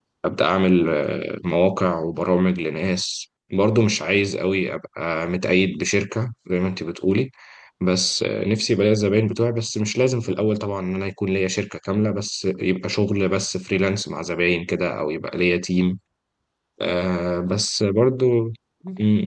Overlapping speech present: No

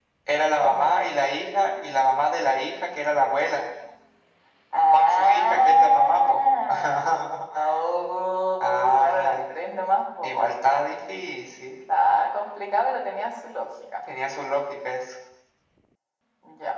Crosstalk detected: Yes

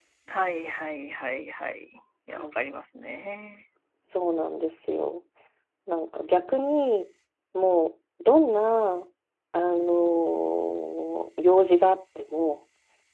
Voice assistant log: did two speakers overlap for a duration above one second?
No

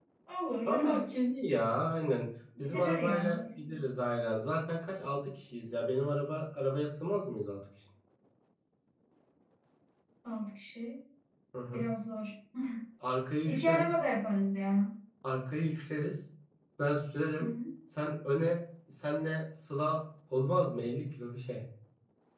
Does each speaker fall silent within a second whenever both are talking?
No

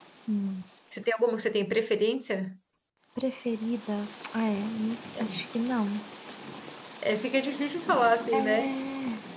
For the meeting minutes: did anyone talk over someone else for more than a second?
No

